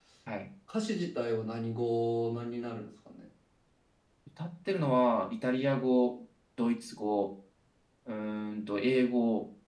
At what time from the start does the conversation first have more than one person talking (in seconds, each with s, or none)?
none